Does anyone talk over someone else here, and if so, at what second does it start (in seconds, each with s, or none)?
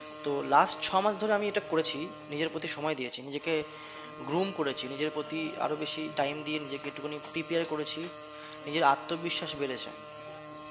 none